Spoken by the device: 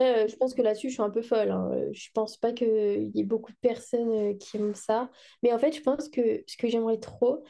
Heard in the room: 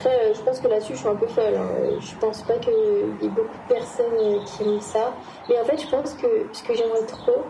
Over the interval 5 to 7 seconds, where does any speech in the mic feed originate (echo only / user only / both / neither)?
echo only